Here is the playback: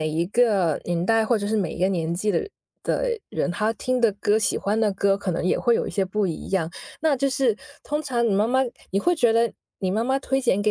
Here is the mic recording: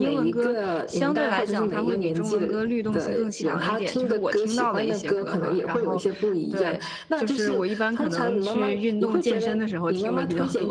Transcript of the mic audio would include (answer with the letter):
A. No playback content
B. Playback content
B